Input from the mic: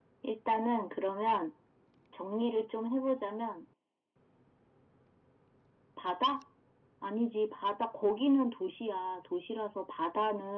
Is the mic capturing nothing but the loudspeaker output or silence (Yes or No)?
Yes